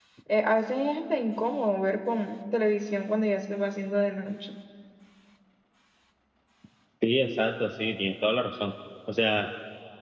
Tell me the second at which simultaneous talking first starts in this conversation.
none

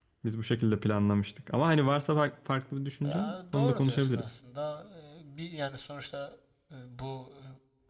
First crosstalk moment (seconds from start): 3.0 s

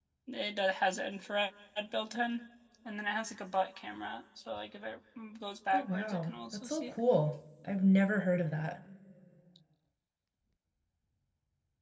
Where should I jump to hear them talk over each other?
5.7 s

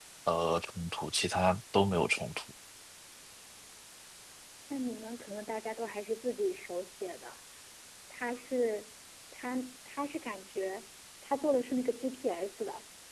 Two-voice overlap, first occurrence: none

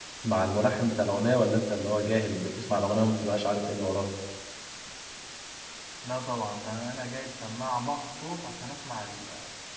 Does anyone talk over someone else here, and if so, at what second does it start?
none

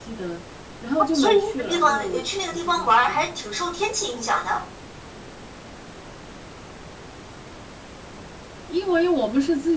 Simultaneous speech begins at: 1.1 s

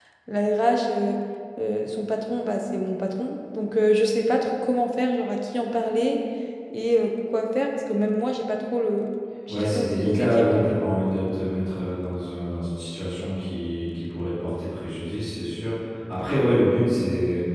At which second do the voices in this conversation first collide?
9.5 s

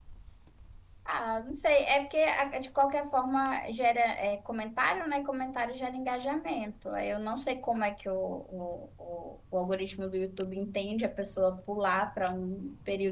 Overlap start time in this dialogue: none

